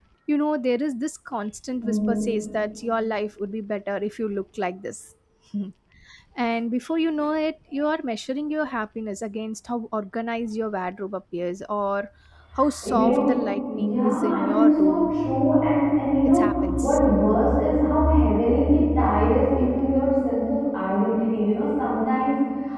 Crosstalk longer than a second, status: present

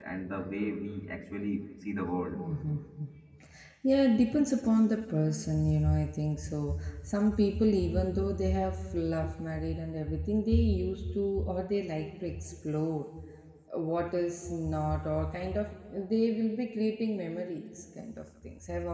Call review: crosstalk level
none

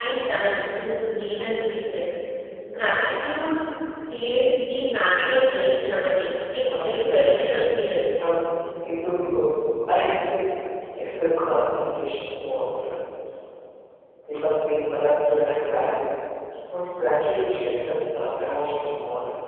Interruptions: present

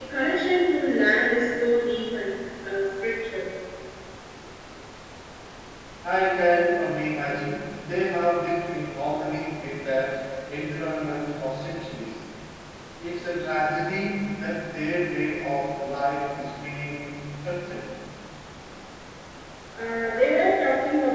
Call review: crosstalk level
none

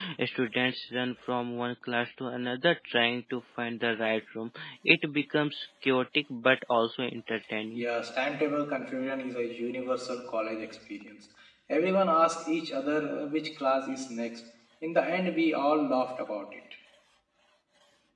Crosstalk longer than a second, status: none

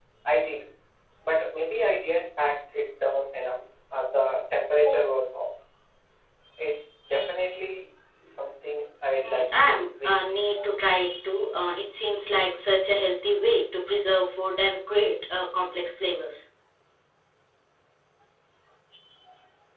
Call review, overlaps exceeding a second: present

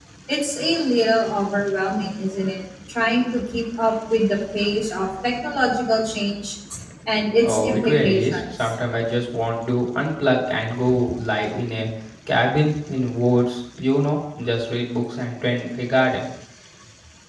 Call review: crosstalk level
present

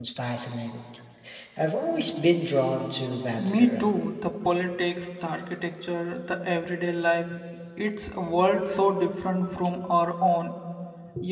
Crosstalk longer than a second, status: none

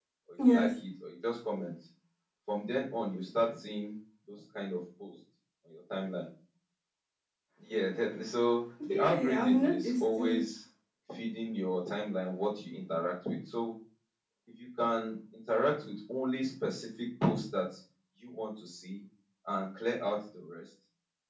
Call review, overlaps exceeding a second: present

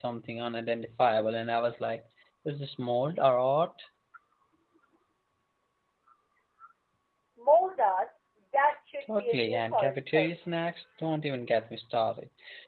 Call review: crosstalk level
present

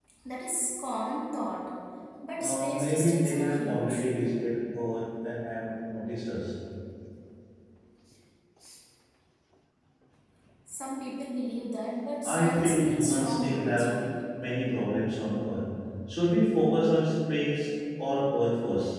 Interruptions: present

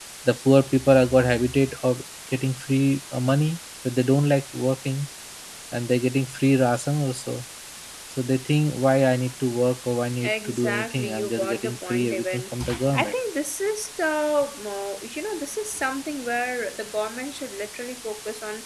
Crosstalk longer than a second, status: present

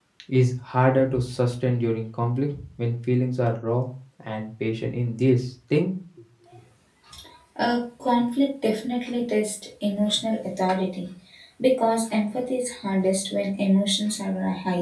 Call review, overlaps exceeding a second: none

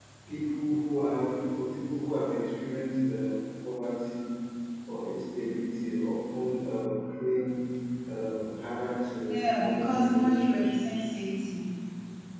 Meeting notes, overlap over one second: present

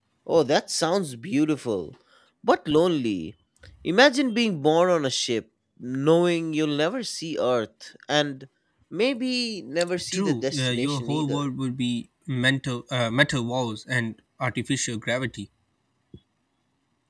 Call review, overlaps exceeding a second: present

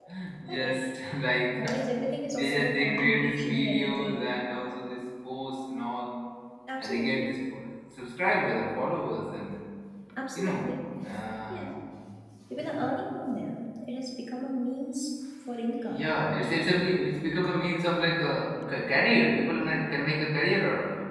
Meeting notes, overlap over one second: present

